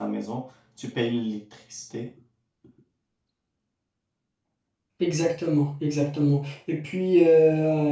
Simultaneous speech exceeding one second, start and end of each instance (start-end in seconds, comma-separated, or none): none